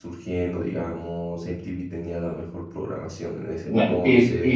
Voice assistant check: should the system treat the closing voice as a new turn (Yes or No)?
Yes